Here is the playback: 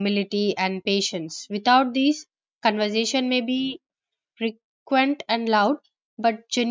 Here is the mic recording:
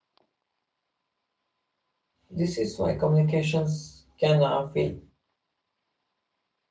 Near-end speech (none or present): present